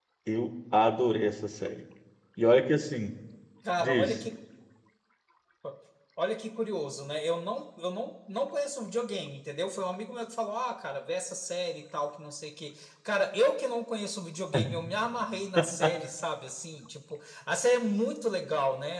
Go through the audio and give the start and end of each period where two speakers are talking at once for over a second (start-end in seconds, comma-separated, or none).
none